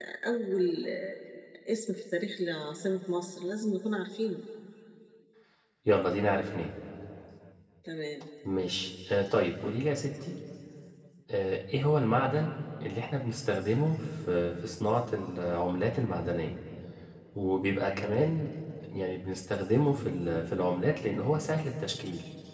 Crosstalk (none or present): none